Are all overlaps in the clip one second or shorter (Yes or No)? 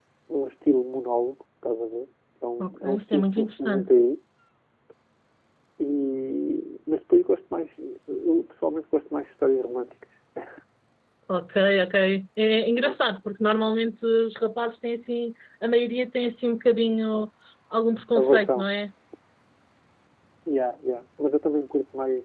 No